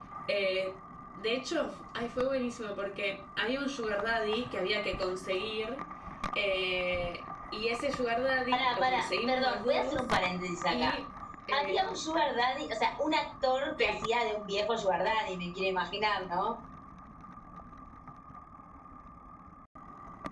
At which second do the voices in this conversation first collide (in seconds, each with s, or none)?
8.5 s